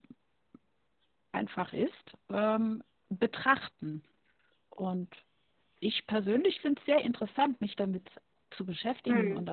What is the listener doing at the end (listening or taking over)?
listening